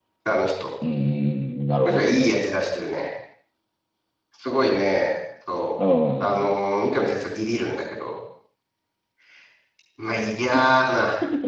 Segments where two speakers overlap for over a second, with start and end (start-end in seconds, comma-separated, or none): none